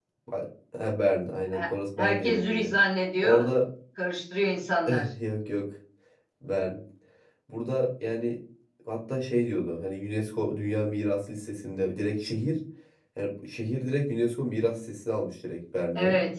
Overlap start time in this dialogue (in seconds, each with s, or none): 1.5 s